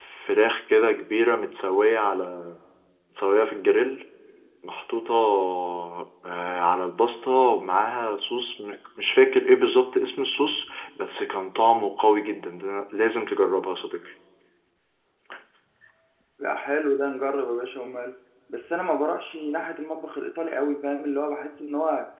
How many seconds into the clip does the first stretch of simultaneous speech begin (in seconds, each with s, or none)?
none